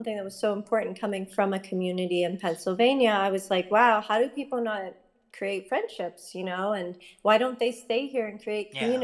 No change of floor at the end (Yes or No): Yes